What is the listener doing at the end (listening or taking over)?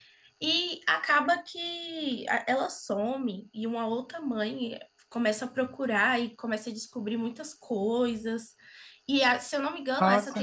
listening